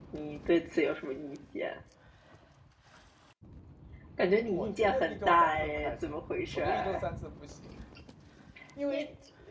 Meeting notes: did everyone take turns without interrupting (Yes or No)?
No